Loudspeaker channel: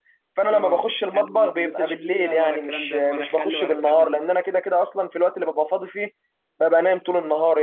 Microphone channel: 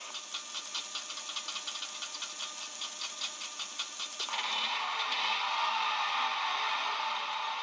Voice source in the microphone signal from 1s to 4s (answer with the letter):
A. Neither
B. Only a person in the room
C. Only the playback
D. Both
A